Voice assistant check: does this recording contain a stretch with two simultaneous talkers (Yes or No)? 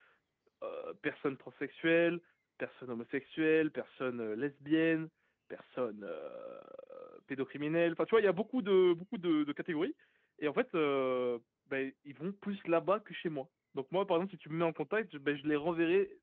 No